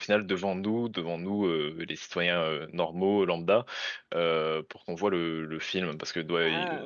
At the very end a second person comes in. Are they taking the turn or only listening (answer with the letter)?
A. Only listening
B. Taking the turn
B